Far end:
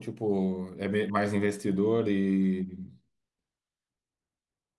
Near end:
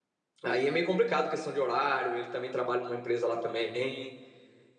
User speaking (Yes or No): Yes